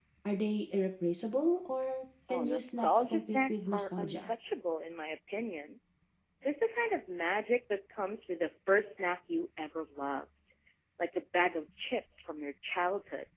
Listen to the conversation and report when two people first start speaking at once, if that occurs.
2.3 s

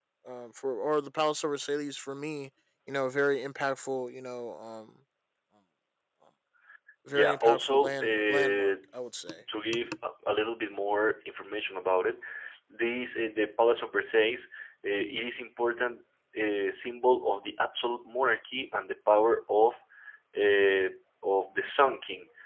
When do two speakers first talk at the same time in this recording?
7.1 s

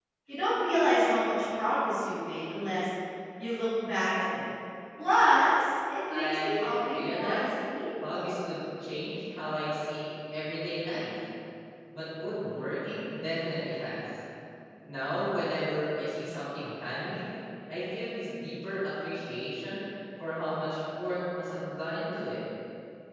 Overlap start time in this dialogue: 6.1 s

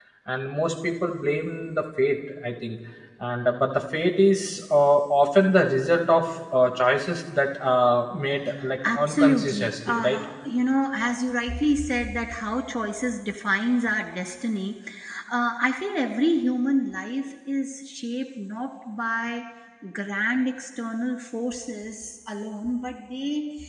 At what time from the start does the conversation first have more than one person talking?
8.8 s

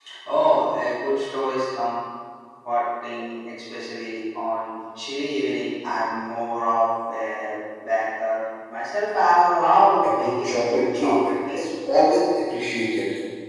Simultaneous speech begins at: 10.0 s

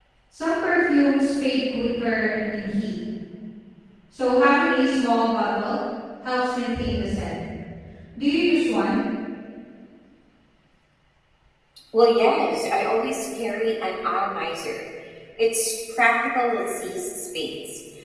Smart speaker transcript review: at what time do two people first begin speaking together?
none

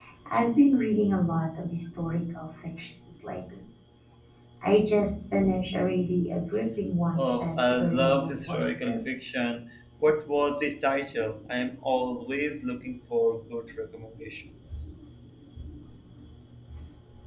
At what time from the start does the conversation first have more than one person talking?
7.2 s

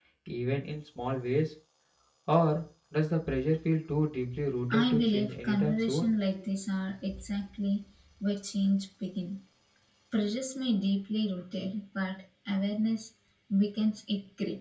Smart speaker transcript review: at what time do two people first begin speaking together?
4.7 s

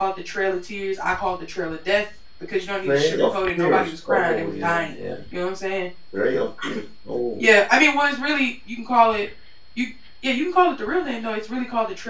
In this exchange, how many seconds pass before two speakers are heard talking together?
2.9 s

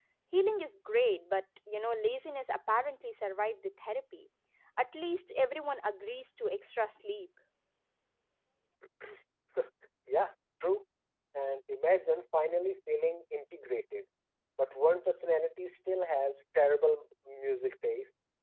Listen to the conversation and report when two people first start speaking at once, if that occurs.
none

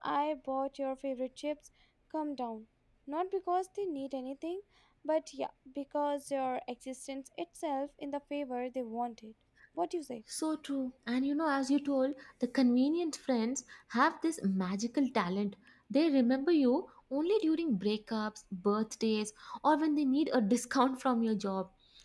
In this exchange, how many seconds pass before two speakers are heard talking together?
none

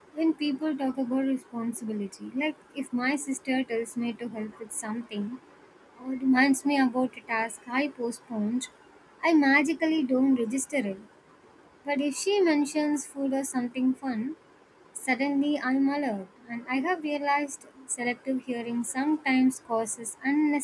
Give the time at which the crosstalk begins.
none

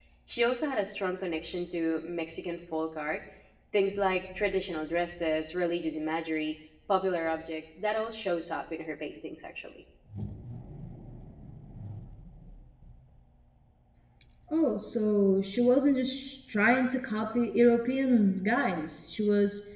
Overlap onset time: none

